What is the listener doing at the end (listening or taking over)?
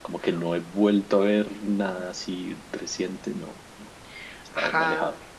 taking over